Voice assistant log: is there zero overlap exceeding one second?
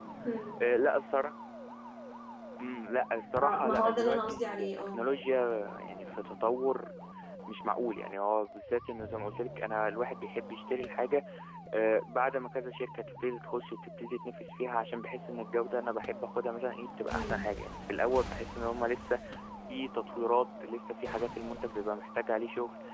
No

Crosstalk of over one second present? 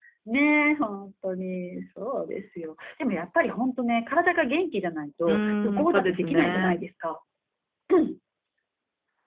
Yes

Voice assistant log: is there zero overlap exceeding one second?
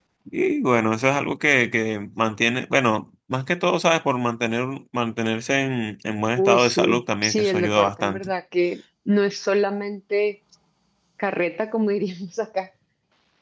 No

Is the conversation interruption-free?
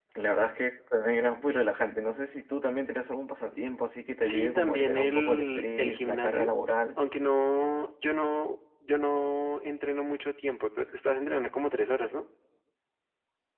No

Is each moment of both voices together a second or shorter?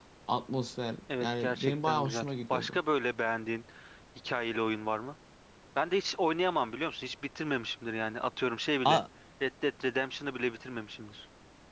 No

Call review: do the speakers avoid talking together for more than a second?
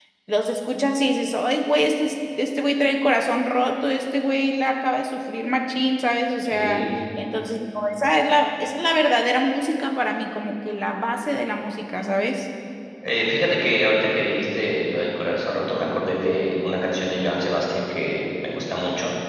Yes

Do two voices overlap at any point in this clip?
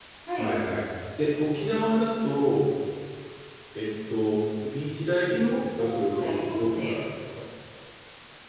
Yes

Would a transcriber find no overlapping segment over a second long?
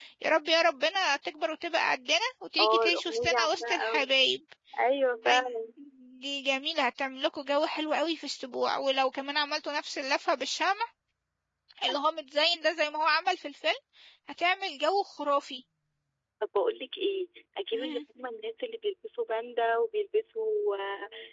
No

